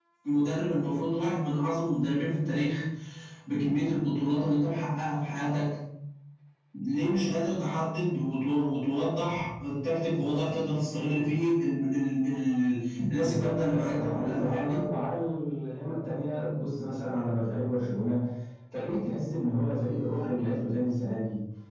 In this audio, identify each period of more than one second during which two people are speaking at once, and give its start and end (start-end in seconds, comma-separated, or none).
13.2-14.8